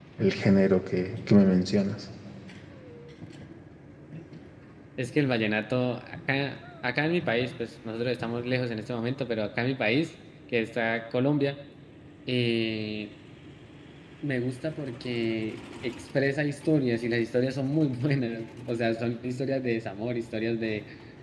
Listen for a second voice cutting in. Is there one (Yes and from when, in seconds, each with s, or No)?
No